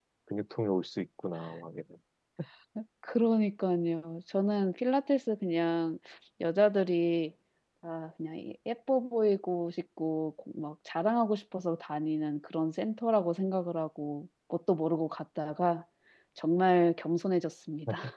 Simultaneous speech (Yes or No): No